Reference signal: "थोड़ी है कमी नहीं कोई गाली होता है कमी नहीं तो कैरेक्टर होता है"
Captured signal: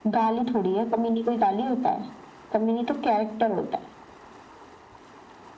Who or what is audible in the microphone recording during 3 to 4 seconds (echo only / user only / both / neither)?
echo only